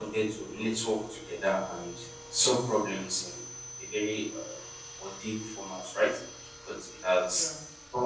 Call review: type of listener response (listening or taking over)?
listening